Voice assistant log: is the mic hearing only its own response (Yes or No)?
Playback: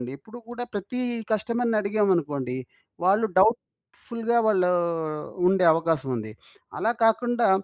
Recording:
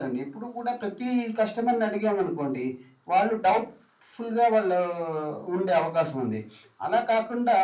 Yes